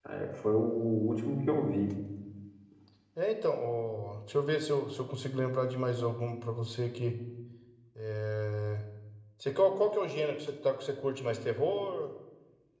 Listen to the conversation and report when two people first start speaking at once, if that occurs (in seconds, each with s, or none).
none